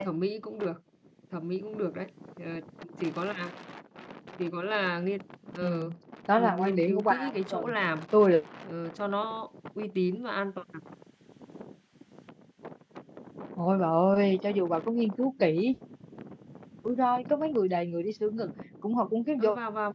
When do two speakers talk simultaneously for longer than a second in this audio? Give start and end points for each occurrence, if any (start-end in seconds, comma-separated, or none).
6.4-7.7